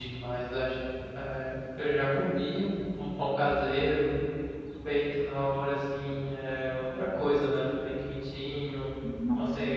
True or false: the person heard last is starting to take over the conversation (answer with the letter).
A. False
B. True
A